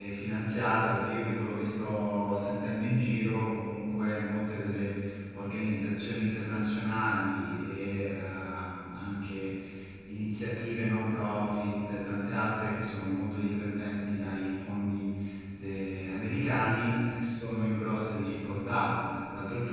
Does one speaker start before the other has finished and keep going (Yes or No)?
No